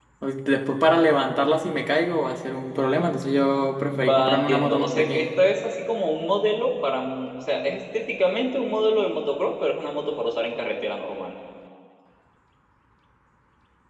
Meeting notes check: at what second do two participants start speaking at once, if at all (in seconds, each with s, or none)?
3.9 s